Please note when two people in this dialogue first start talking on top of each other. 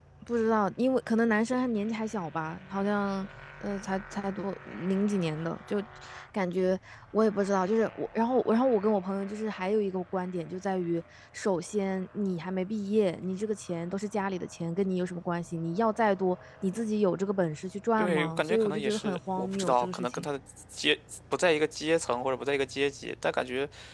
18 s

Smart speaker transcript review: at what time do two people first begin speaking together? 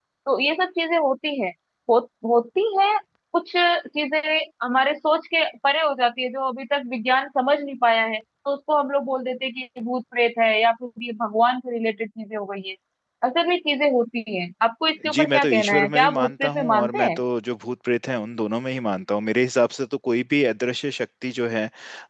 15 s

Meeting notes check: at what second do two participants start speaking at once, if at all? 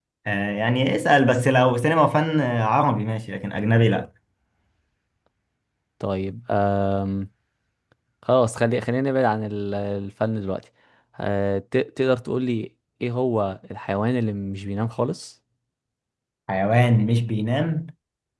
none

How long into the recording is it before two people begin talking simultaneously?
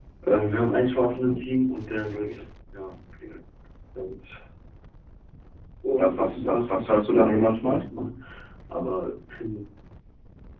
6 s

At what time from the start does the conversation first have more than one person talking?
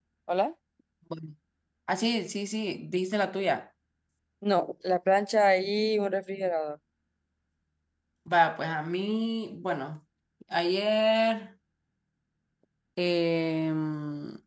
none

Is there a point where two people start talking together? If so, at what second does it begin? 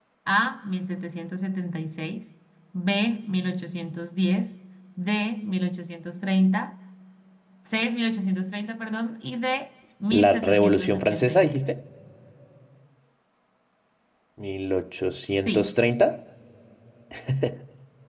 10 s

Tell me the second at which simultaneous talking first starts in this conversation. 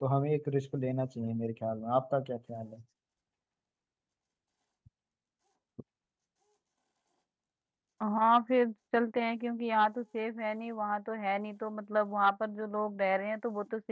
none

